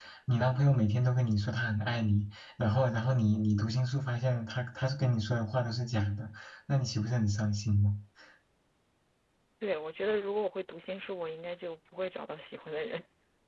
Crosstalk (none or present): none